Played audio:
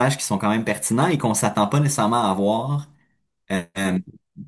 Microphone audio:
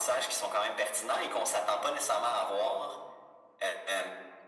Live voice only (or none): none